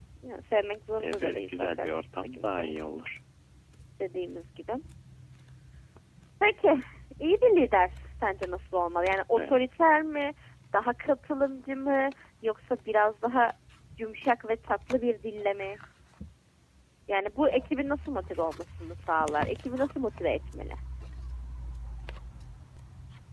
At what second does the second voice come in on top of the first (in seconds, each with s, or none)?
1.0 s